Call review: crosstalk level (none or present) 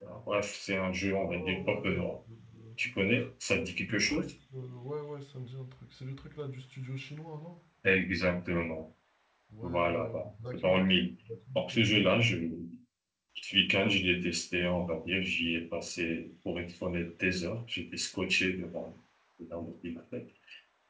present